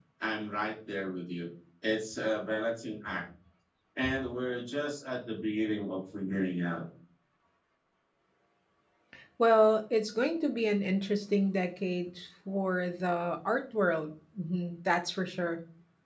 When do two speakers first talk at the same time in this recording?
none

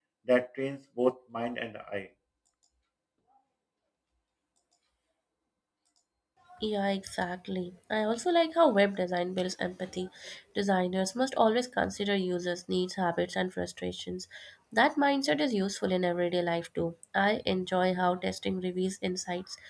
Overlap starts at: none

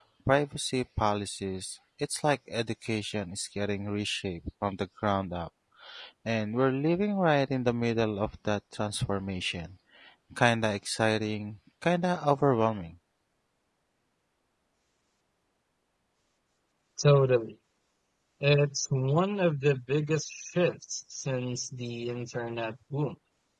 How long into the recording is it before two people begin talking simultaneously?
none

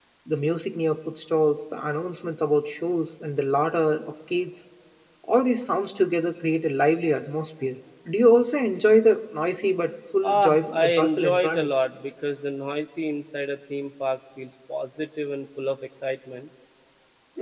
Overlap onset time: 10.2 s

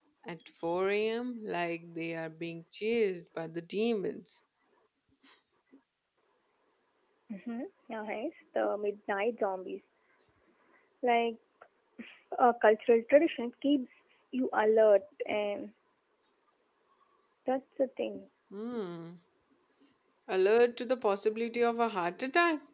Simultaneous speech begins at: none

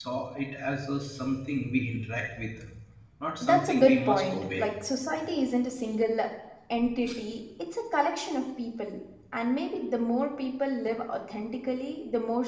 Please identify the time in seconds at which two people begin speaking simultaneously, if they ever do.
3.4 s

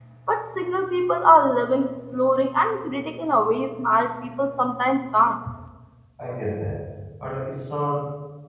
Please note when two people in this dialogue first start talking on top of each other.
none

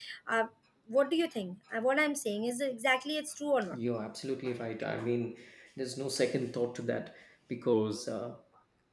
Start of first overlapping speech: none

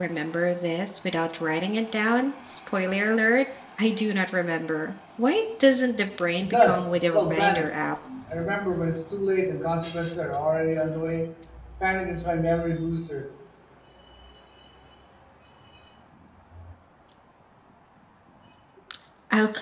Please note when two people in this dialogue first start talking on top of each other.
6.4 s

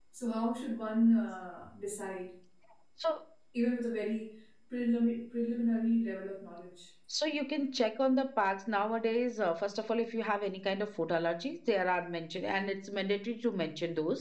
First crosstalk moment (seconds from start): none

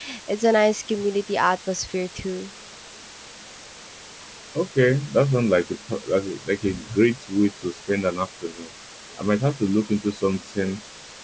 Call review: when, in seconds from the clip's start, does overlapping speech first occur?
none

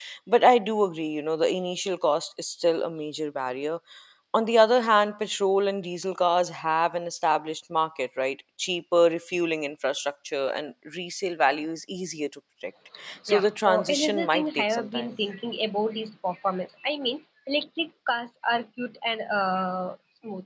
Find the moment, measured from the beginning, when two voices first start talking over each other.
13.3 s

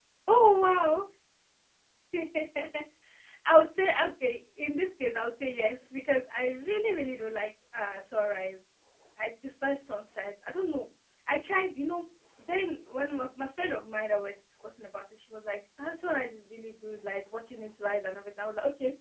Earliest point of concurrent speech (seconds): none

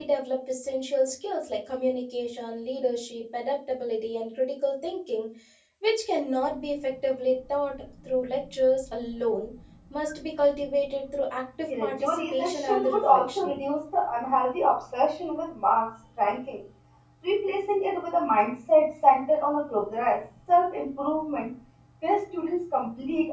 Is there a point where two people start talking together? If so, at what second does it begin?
11.7 s

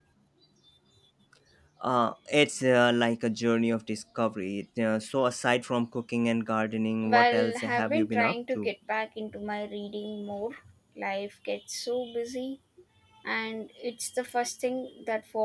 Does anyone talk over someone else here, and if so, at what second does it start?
7.0 s

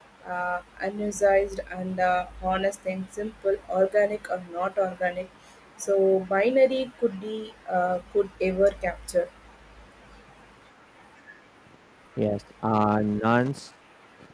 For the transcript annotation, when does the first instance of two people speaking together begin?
none

